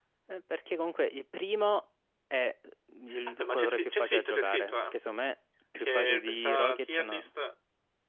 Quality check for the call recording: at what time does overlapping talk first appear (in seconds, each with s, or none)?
3.4 s